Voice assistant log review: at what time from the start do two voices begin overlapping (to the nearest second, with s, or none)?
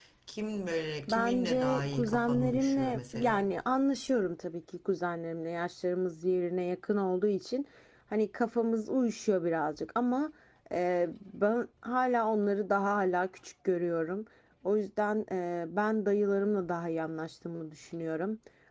1 s